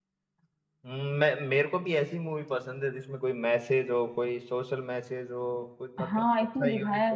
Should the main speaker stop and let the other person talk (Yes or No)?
Yes